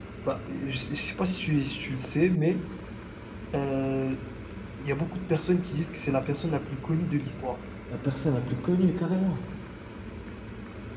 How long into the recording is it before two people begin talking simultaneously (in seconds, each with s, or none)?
none